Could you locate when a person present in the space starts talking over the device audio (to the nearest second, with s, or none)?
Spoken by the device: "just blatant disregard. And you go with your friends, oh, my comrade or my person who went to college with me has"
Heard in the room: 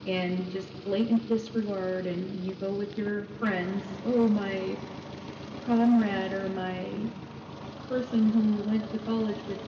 none